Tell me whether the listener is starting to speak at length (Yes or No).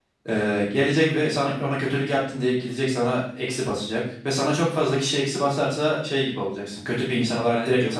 Yes